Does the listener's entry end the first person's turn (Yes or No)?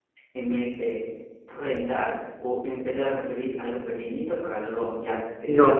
Yes